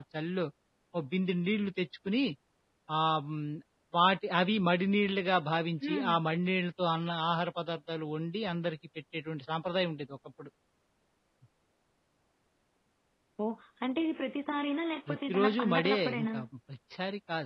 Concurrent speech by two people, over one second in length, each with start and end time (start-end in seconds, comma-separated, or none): 15.1-16.4